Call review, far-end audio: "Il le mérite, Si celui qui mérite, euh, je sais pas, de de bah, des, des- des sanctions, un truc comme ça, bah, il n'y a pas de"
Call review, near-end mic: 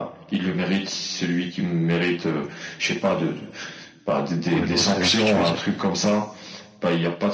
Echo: present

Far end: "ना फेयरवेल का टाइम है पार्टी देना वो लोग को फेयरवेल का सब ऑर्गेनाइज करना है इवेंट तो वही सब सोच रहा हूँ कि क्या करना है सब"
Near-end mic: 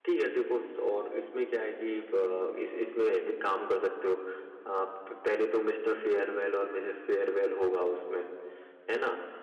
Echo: none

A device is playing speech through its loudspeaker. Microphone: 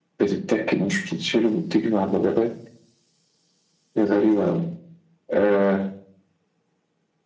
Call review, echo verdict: present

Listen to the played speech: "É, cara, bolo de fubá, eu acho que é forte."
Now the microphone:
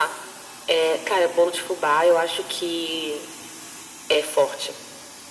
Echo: present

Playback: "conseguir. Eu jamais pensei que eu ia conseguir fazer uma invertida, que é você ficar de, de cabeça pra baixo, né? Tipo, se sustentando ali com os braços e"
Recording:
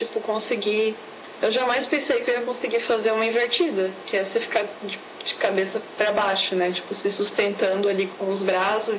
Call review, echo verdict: present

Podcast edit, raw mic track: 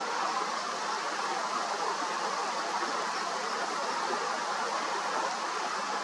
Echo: none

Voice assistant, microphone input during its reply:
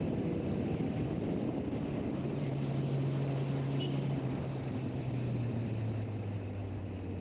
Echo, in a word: none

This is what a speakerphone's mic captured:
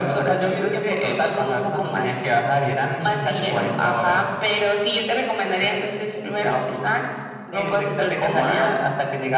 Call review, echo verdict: present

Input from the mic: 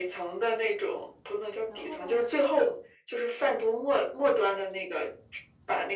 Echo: present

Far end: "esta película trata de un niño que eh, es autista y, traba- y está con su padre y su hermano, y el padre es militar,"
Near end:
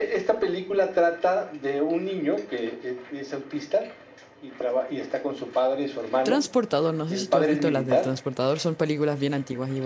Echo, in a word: present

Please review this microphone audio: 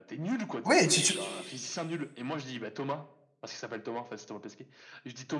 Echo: present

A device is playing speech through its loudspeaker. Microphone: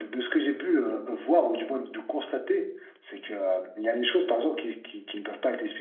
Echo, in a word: none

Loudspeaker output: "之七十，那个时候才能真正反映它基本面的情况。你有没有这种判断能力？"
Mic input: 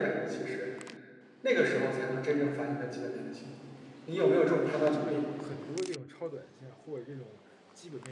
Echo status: present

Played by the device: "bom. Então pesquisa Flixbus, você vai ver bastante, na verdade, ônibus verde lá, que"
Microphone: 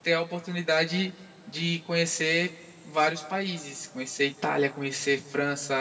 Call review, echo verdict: none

